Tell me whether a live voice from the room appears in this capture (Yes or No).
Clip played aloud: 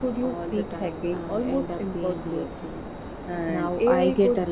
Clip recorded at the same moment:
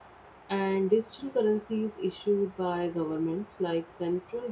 Yes